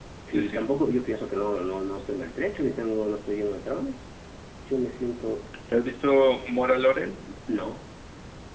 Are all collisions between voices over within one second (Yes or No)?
Yes